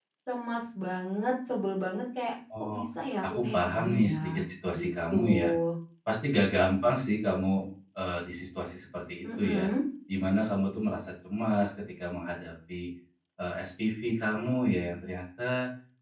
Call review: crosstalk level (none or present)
present